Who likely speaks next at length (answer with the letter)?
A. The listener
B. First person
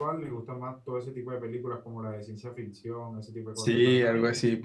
A